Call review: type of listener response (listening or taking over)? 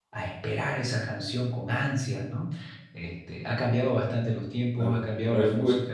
taking over